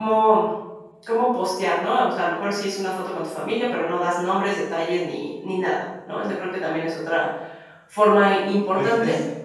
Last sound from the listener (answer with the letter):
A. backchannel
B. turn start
B